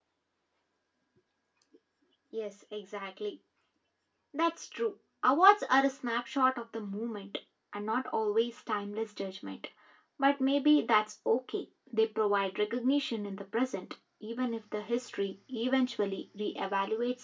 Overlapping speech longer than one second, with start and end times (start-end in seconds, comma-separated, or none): none